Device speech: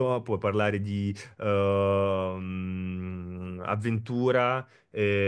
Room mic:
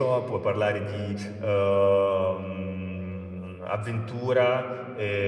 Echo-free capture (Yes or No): No